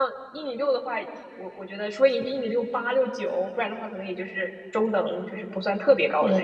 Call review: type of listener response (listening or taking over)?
taking over